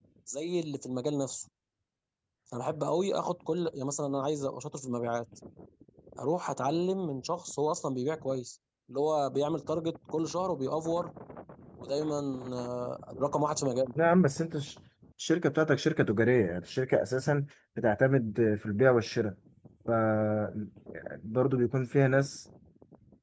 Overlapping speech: No

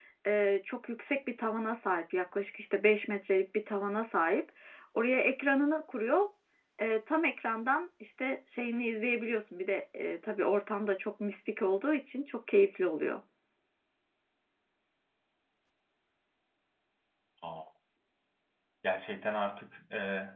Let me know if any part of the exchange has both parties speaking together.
No

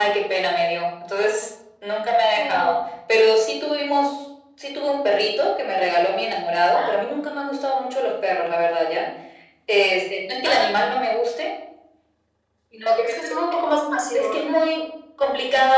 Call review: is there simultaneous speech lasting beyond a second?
No

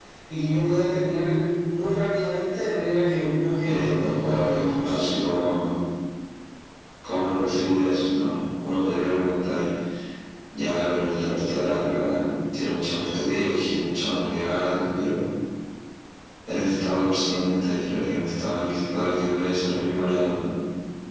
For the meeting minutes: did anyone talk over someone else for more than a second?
Yes, from 3.6 s

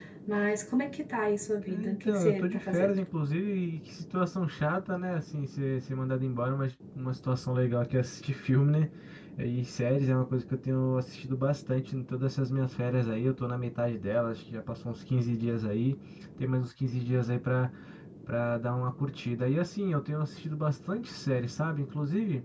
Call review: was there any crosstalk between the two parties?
Yes, from 1.6 s

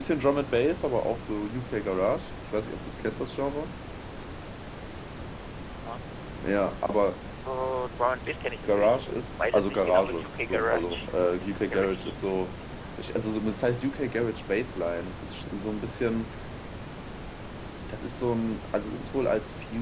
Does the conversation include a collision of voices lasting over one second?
Yes, from 8.6 s

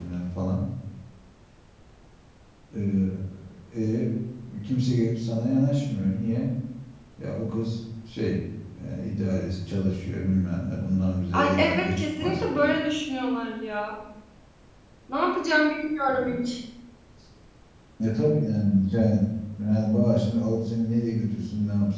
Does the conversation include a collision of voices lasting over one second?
Yes, from 11.3 s

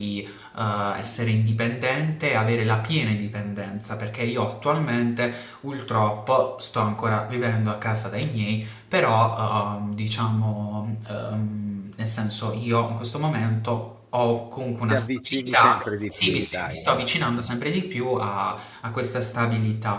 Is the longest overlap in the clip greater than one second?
Yes, from 14.9 s

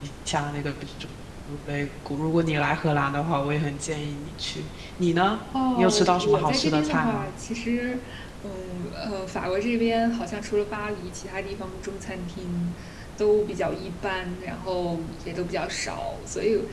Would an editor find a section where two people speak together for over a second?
Yes, from 5.8 s

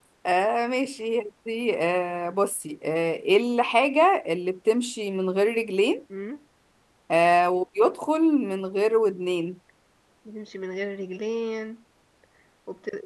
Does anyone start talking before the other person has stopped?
No

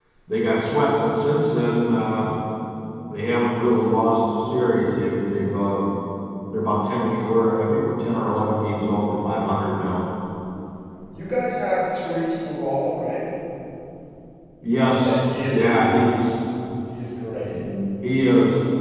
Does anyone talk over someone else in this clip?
Yes, from 14.9 s

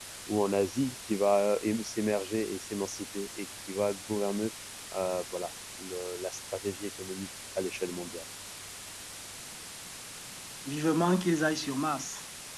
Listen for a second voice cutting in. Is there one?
No

